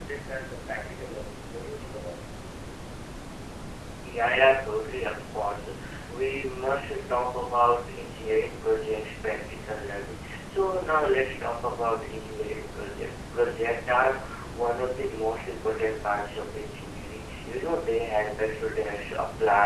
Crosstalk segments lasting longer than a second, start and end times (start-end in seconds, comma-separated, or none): none